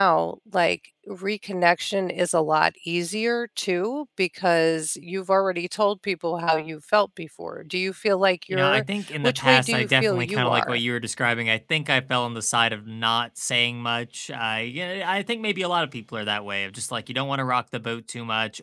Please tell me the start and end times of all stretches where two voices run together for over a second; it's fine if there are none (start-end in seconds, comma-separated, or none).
9.2-10.8